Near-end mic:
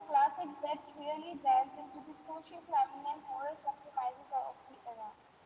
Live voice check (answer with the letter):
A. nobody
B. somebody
A